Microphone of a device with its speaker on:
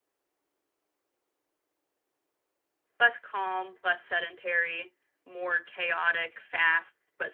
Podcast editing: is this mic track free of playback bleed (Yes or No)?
Yes